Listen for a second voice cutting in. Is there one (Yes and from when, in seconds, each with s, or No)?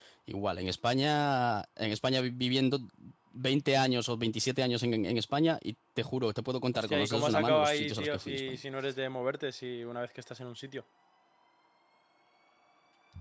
Yes, from 6.7 s